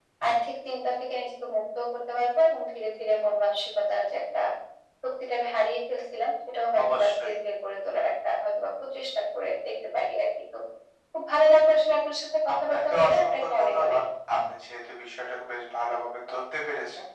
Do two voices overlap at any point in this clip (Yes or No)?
Yes